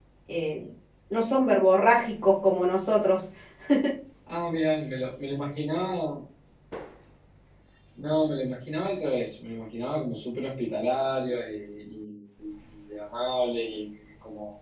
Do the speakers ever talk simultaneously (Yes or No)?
No